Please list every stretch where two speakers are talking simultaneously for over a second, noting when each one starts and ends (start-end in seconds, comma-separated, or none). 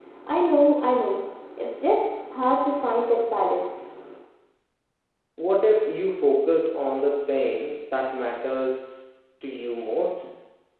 none